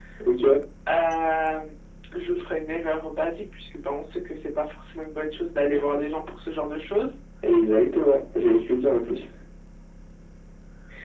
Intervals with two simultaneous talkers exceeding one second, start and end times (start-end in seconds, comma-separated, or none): none